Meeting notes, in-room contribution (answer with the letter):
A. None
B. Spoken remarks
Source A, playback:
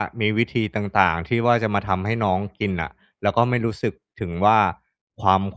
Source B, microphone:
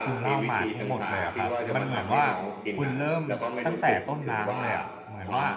B